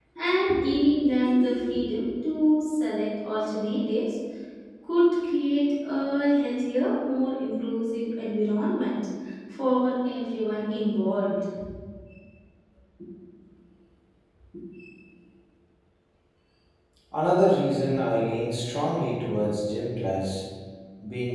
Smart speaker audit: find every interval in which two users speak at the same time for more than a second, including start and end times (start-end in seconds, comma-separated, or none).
none